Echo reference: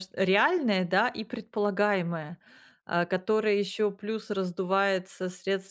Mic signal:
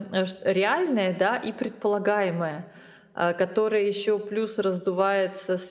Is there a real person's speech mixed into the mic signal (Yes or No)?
No